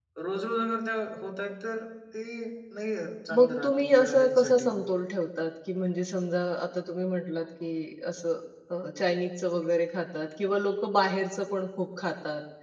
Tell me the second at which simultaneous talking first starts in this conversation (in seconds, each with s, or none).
3.3 s